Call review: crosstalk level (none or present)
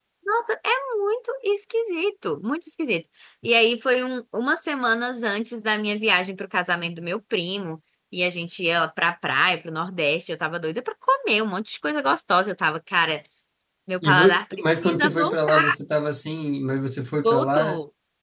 present